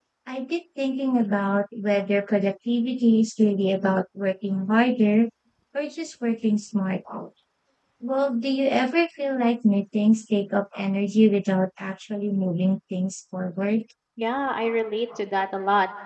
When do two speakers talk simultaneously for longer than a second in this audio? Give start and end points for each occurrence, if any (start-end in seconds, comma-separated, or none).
none